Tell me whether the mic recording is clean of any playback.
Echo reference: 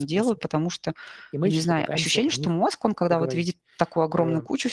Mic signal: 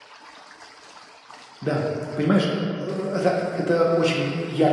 Yes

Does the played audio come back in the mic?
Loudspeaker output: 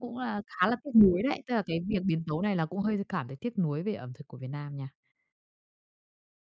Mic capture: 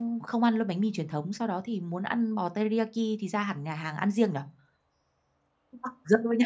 No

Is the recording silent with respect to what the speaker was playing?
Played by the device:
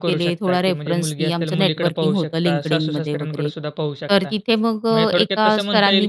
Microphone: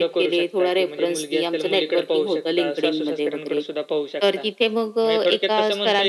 No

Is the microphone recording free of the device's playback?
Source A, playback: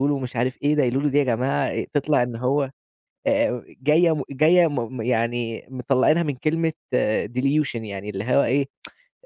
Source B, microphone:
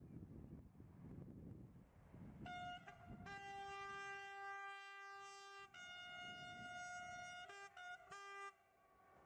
Yes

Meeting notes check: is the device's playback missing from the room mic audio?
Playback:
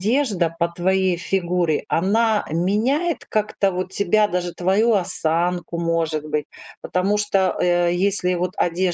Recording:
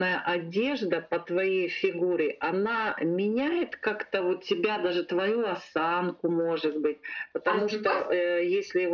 No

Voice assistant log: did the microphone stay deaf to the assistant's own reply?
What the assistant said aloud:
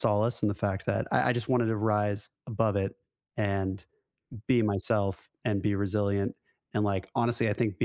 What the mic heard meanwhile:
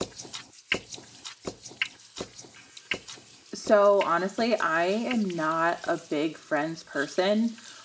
Yes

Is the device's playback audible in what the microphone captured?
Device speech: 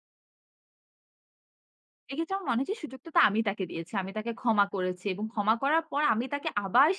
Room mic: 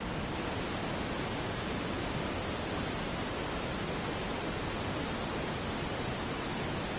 No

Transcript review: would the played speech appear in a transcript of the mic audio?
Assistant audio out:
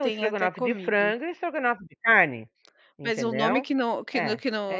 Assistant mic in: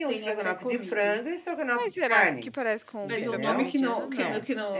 Yes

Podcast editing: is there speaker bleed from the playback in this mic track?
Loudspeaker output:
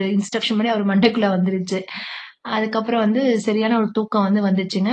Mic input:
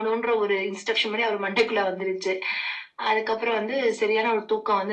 Yes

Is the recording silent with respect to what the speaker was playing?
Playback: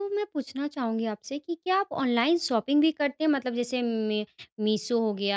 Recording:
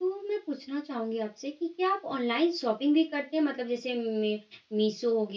No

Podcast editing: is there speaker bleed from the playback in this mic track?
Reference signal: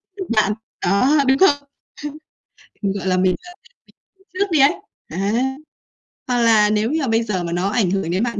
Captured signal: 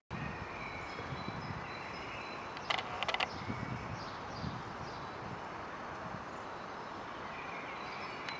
No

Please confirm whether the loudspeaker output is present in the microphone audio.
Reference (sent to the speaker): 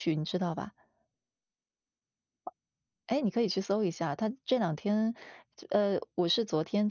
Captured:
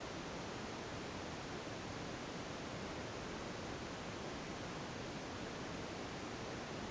No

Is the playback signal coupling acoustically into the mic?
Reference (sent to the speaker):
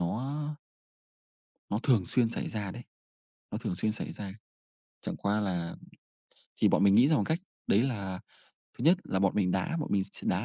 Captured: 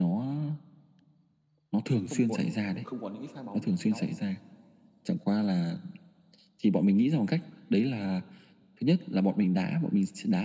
Yes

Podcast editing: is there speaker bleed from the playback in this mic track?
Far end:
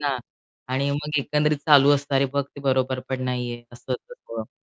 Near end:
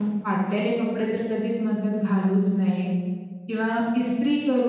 No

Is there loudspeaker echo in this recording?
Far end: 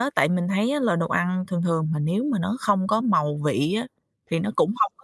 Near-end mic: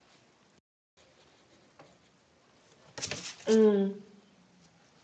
No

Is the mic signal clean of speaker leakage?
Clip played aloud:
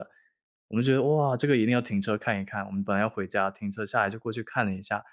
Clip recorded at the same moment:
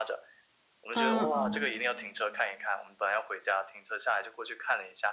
No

